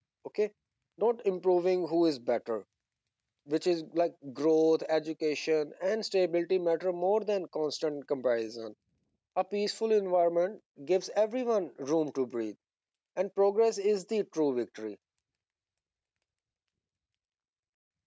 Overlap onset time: none

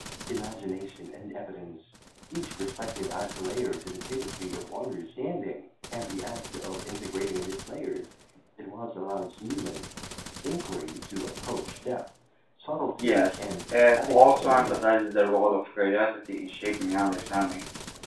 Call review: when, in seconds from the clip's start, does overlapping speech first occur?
13.0 s

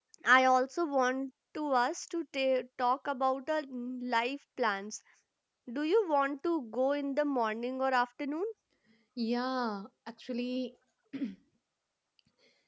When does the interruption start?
none

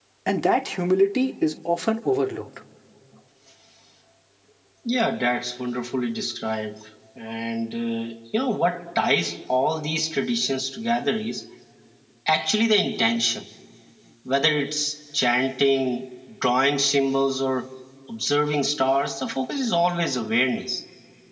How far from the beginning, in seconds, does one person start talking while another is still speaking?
none

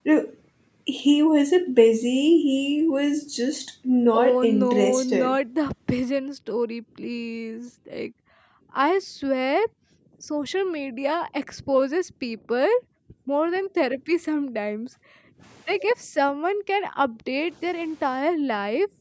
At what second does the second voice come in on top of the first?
4.1 s

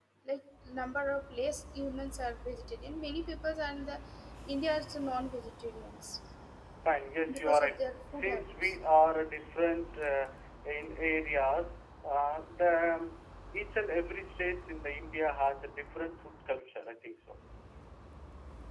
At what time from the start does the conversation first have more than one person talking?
7.3 s

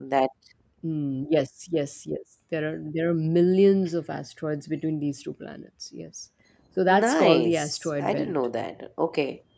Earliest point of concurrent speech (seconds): 6.9 s

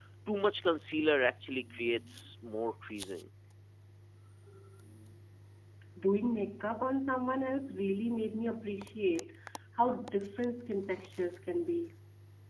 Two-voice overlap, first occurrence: none

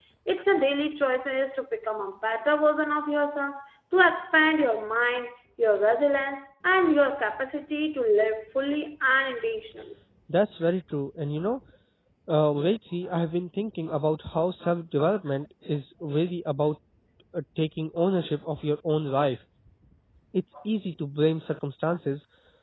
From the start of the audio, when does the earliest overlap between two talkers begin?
none

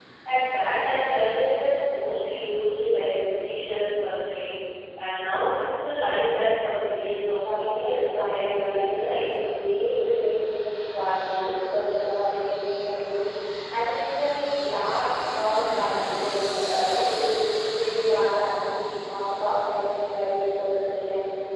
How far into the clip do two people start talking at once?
7.4 s

